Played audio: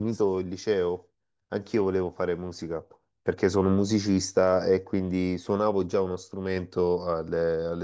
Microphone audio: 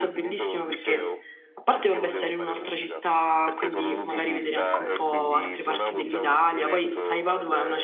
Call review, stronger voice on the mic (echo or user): user